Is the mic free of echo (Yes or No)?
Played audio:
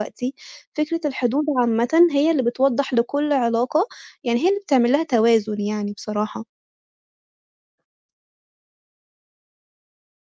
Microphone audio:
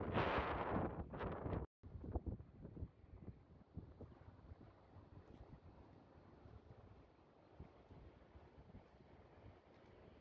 Yes